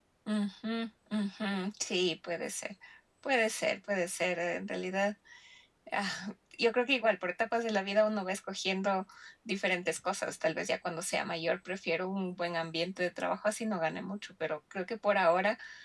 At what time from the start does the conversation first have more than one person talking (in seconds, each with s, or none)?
none